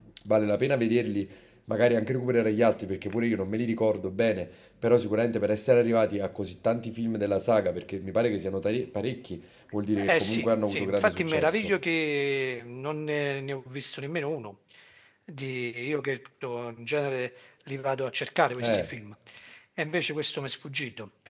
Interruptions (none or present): present